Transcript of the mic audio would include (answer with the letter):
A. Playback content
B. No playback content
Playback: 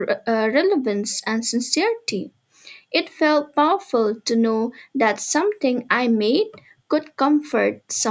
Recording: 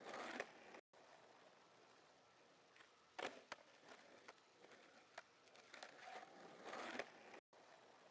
B